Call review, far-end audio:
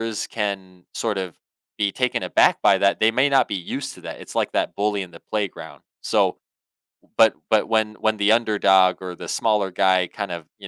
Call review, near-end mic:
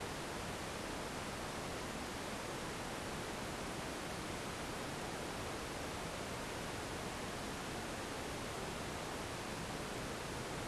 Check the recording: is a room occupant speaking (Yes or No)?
No